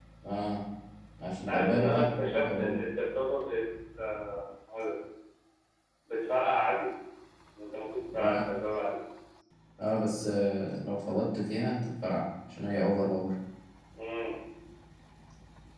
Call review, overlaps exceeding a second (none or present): present